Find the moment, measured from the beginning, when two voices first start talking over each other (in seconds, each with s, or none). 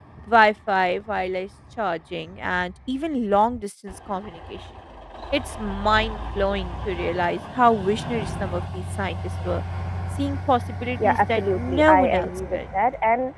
11.0 s